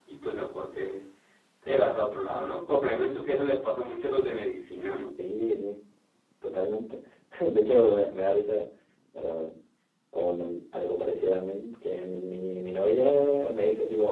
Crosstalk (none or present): none